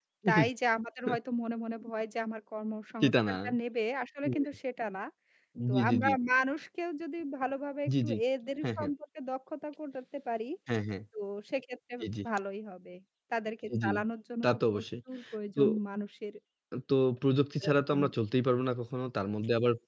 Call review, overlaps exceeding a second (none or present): none